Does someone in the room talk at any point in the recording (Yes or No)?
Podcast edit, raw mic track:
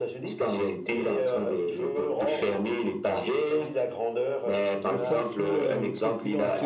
Yes